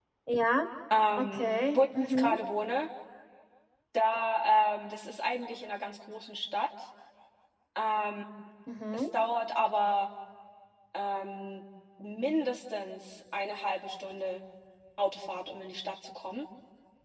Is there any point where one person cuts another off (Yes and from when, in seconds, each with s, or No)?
Yes, from 1.2 s